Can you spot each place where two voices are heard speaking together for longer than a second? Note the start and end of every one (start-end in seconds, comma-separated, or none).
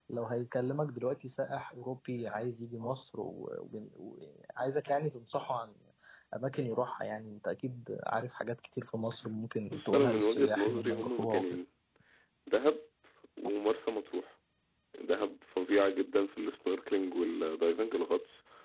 9.7-11.4